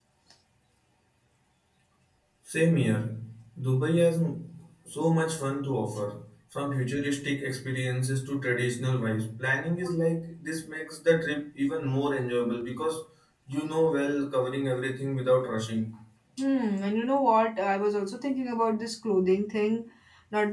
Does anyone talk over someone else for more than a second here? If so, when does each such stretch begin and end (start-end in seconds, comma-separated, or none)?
none